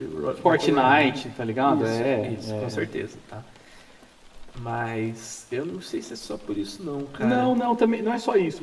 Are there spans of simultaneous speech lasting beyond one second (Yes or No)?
Yes